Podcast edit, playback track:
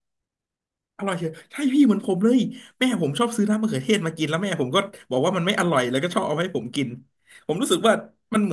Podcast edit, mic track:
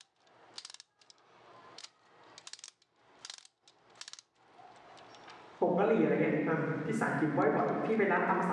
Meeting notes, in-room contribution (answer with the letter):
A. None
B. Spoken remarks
B